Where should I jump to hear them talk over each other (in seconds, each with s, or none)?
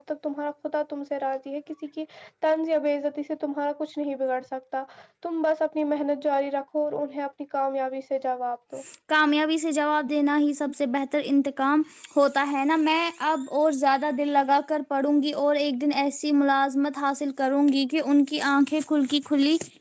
none